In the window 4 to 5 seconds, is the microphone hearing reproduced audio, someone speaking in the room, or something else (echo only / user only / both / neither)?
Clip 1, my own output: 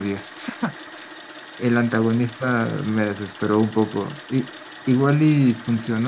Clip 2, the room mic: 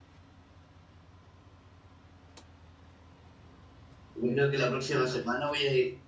user only